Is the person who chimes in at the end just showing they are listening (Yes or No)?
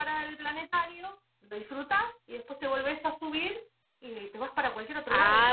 No